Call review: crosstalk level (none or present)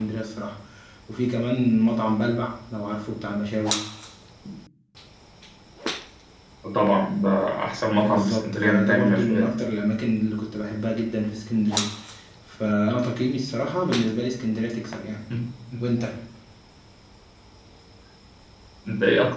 present